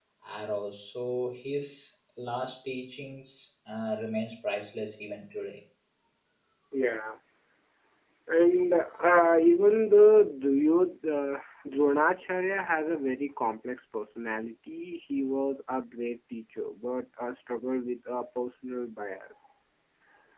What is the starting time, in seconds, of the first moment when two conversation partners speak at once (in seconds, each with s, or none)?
none